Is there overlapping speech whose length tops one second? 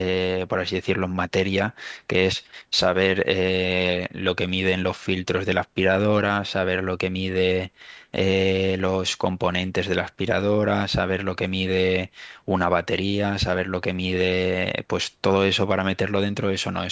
No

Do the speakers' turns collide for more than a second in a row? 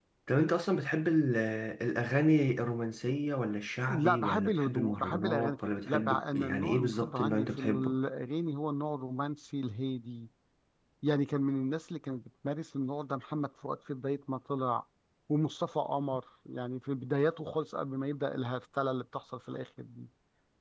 Yes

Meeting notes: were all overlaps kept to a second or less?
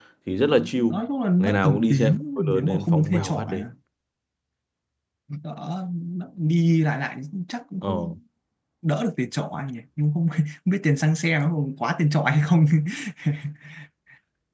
No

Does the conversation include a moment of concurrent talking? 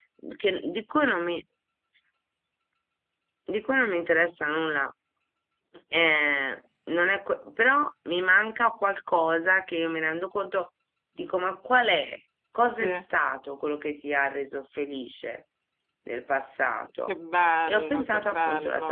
Yes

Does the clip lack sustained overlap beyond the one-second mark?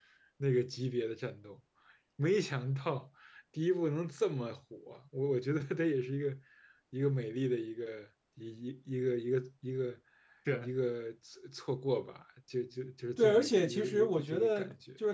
No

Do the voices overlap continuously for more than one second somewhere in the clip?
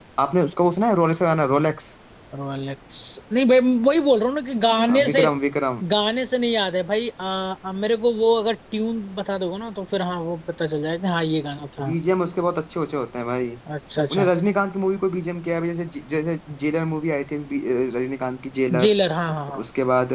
No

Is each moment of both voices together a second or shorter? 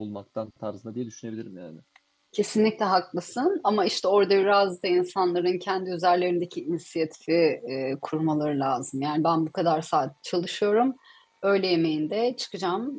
Yes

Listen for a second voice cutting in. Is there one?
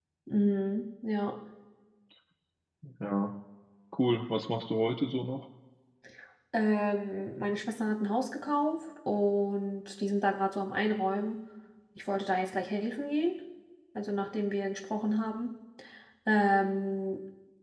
No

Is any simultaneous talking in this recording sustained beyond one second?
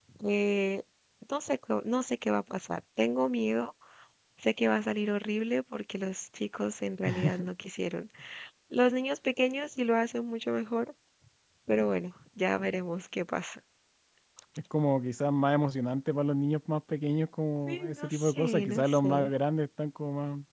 Yes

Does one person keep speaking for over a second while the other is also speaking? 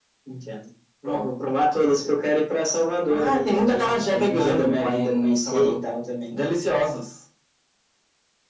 Yes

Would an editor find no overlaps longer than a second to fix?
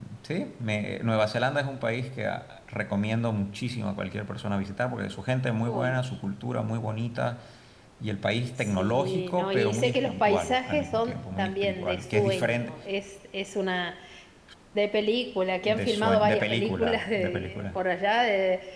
No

